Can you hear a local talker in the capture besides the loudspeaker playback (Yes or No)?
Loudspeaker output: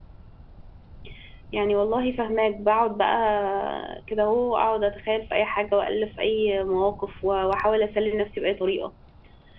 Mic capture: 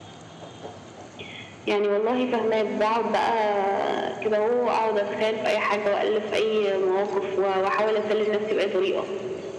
No